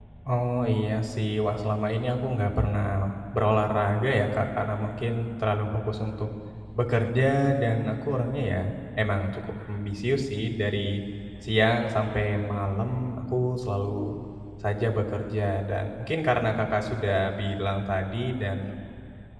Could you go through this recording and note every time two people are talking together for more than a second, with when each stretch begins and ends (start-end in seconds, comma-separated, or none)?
none